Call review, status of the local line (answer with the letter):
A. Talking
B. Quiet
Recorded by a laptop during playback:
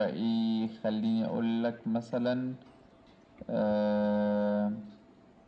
B